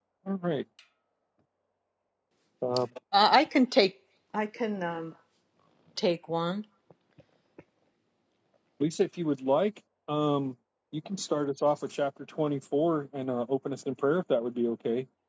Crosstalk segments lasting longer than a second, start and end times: none

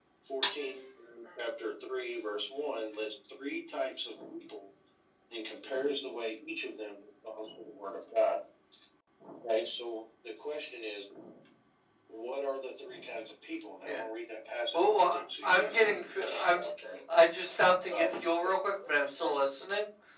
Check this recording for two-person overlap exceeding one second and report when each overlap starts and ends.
14.7-16.7

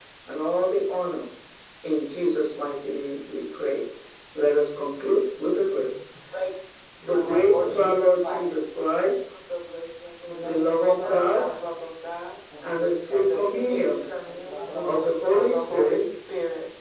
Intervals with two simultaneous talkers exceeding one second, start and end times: 7.2-8.9, 10.2-11.6, 13.1-16.1

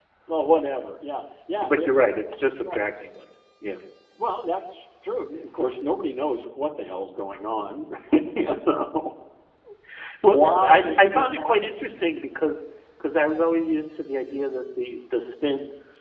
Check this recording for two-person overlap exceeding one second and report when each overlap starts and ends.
10.3-11.8

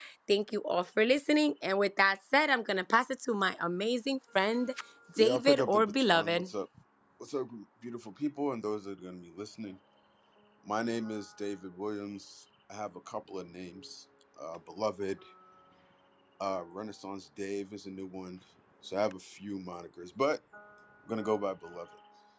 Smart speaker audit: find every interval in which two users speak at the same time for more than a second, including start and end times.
5.2-6.5

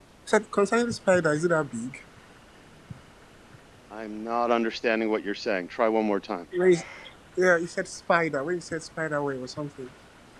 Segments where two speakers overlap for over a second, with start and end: none

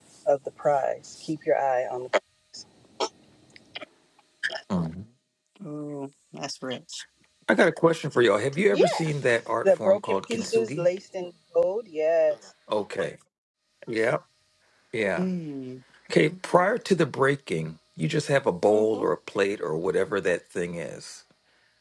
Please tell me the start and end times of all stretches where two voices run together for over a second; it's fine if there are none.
9.6-10.9

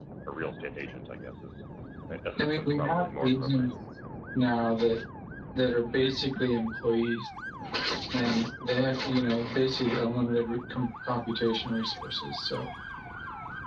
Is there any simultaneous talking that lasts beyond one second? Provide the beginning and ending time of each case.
2.4-3.7

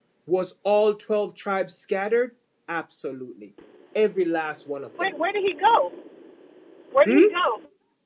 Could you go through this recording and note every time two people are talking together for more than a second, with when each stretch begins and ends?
none

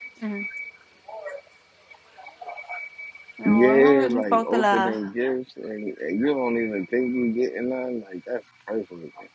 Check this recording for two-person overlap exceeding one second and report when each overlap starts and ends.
3.5-4.9

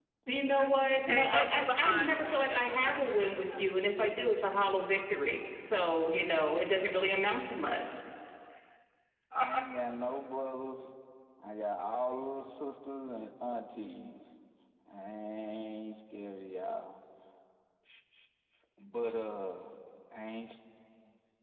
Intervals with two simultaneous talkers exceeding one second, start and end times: 0.9-3.6

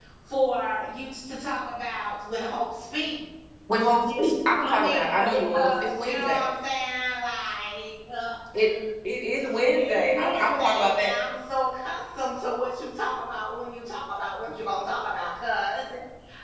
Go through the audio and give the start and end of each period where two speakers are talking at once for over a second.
4.6-6.4, 9.6-11.1

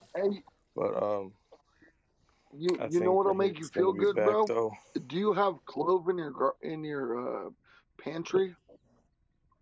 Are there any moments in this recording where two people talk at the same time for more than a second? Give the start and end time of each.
2.8-4.5

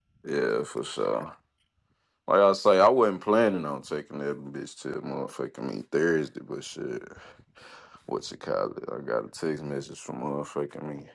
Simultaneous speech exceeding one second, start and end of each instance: none

